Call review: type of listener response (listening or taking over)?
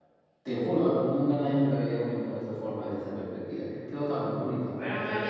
taking over